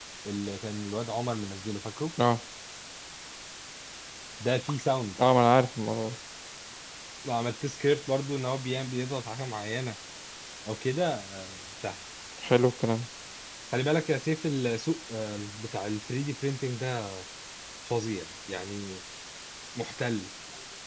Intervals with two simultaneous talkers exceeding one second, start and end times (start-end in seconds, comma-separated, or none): none